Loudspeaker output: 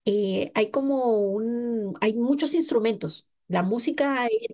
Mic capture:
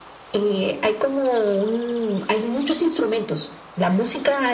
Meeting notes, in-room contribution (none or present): none